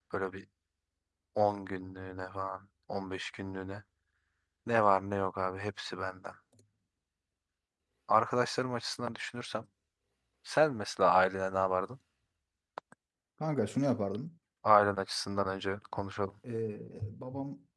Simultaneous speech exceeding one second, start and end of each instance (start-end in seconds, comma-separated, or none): none